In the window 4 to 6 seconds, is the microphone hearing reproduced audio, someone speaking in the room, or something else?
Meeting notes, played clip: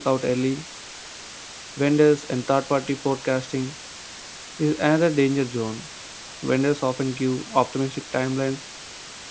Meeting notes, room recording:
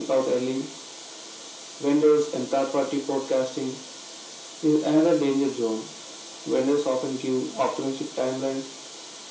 echo only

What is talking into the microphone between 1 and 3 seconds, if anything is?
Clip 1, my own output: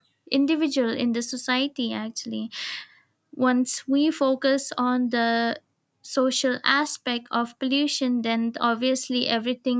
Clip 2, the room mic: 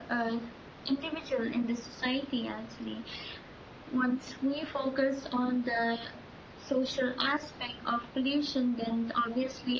echo only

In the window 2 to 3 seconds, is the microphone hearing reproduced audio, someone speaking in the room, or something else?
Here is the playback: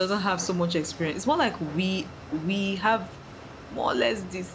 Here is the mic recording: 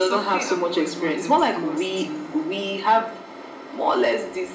both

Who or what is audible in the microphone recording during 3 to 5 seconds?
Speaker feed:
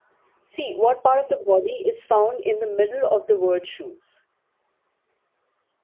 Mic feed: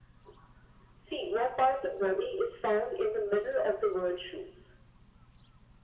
echo only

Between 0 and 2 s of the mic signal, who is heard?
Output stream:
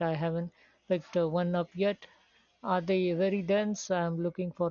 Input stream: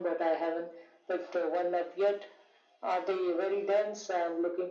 echo only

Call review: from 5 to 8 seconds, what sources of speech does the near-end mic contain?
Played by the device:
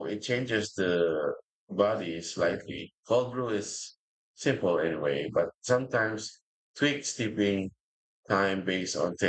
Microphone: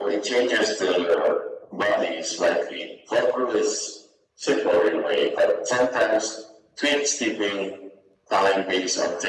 echo only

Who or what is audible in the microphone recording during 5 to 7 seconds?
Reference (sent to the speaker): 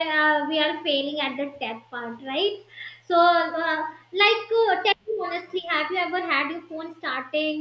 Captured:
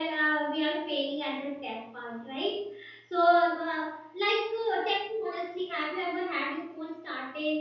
echo only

